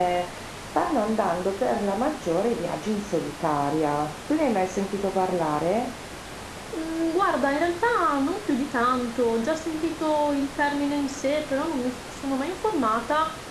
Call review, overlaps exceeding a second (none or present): none